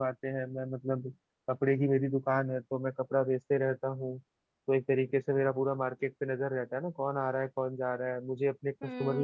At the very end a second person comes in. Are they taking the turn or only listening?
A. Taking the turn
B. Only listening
A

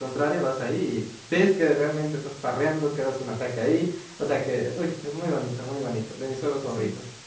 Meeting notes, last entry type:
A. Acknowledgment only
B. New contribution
B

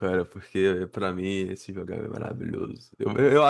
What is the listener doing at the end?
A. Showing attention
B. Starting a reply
A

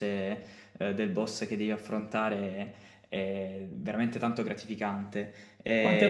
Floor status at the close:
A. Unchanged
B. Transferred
B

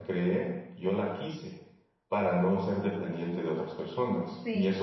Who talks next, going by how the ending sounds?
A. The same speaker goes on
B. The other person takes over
A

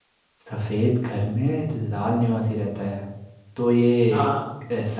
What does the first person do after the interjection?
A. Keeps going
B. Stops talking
A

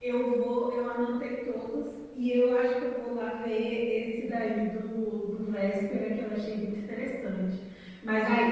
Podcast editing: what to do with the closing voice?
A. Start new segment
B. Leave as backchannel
B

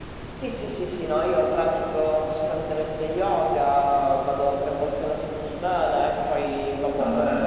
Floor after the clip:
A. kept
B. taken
A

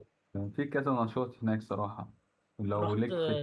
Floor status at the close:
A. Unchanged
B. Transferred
B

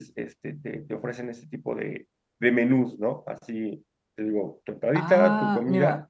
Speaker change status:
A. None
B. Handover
B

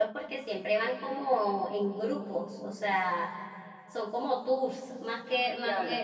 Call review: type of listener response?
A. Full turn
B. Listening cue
B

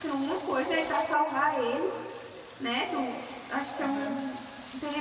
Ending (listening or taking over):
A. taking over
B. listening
B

